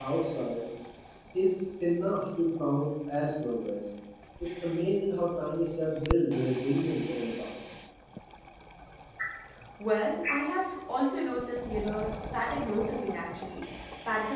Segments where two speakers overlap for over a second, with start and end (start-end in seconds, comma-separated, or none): none